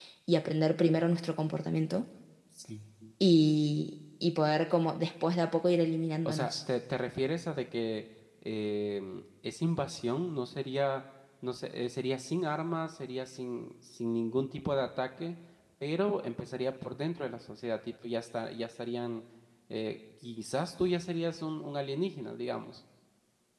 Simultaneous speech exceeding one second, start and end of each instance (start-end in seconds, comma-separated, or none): none